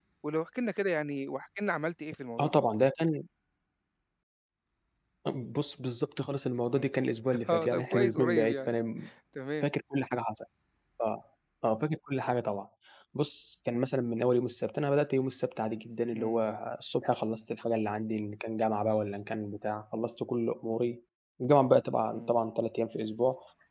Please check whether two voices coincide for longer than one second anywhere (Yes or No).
Yes